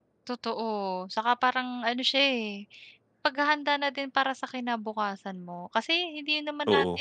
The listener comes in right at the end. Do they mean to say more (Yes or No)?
No